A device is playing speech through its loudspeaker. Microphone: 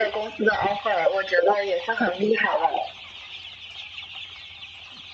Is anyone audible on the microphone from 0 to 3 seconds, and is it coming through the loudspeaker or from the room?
echo only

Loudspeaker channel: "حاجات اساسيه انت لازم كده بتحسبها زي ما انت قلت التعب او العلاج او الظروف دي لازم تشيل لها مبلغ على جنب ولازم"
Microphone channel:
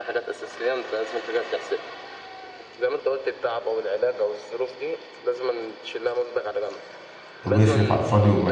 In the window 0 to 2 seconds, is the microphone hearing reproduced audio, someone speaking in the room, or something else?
echo only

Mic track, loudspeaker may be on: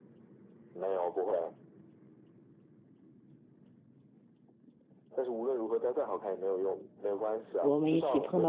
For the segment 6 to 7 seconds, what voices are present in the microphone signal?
echo only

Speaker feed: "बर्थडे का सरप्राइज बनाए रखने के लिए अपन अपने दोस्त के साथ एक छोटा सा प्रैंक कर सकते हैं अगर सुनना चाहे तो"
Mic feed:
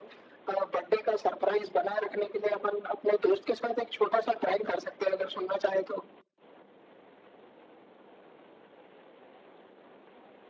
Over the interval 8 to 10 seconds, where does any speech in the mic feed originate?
neither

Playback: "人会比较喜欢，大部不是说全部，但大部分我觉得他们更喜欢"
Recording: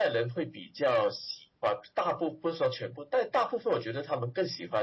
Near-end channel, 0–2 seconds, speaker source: echo only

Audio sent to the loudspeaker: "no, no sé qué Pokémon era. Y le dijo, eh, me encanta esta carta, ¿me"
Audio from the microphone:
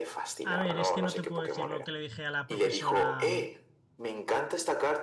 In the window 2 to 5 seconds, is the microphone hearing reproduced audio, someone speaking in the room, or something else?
both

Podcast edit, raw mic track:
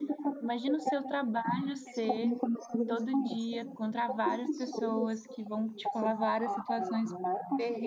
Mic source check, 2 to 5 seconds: both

